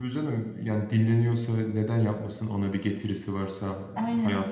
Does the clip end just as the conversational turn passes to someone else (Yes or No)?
No